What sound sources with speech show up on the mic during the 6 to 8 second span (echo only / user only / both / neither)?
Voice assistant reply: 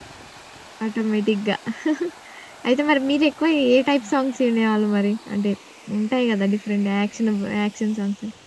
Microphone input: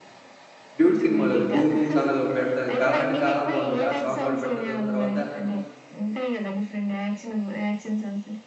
echo only